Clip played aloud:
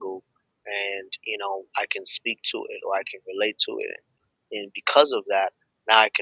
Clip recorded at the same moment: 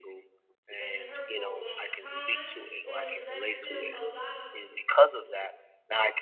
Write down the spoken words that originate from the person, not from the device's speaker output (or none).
and it hurt for a long time and it led to a lot of